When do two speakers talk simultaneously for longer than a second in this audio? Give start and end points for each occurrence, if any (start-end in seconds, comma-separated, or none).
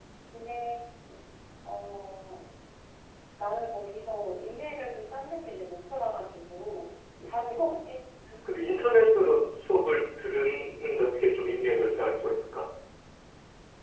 none